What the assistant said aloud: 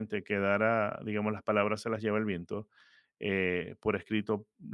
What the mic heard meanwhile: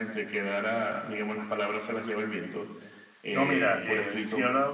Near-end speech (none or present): present